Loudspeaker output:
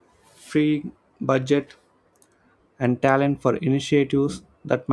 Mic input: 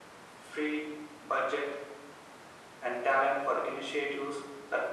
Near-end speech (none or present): none